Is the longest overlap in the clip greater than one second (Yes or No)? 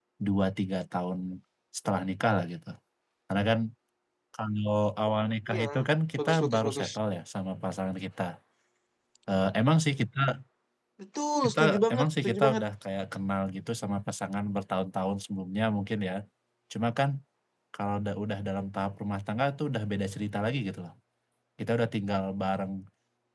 Yes